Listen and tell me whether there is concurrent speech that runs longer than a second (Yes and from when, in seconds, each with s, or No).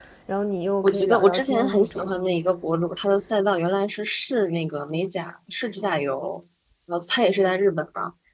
Yes, from 0.8 s